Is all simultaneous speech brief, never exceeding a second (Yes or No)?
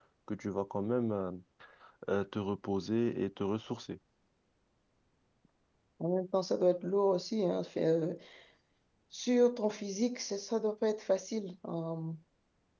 Yes